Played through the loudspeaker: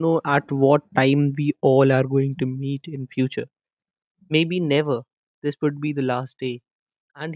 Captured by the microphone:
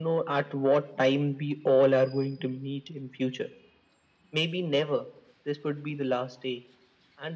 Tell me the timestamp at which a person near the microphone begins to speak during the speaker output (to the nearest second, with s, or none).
none